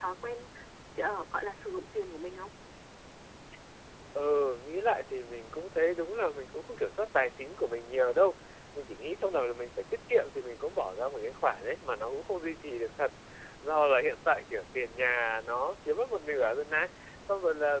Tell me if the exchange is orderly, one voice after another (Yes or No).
Yes